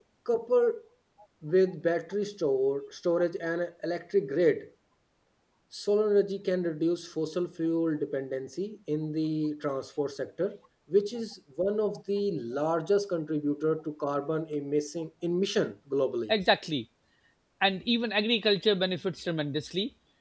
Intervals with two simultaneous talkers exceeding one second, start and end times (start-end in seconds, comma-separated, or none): none